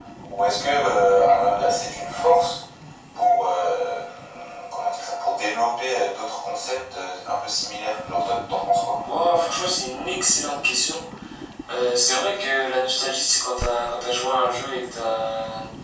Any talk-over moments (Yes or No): No